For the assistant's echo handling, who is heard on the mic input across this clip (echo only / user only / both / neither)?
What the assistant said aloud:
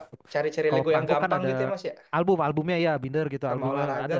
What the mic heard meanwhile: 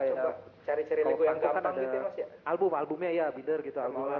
echo only